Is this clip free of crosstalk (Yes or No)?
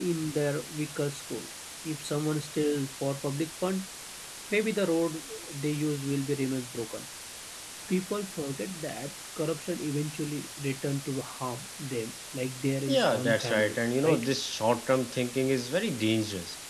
No